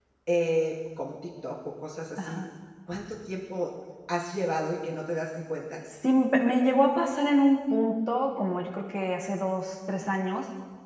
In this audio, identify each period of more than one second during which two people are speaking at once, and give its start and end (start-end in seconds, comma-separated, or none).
none